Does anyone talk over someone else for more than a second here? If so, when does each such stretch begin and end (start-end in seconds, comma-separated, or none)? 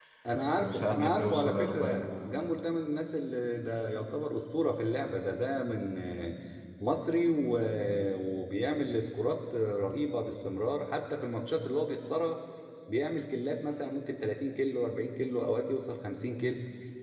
0.6-2.1